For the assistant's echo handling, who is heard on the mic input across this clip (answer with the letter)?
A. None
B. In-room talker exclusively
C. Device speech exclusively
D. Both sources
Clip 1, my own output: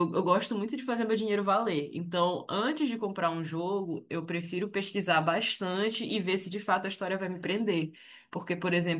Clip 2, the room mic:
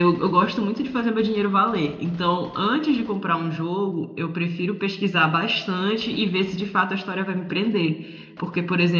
C